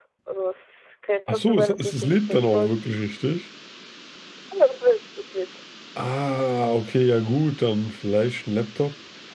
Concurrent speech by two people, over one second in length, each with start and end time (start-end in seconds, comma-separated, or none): 1.3-2.7